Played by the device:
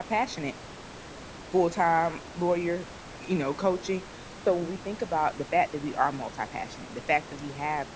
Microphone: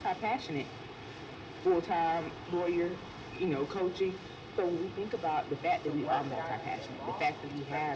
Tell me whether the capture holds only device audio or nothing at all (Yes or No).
No